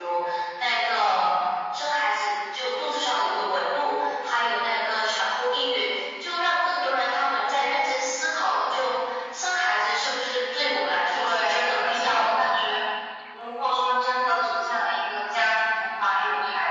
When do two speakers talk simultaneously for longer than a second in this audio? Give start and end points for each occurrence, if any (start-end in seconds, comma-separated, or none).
11.1-12.5